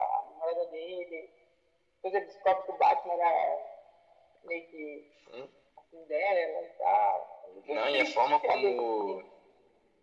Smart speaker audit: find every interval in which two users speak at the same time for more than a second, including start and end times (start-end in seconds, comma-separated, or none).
7.7-9.2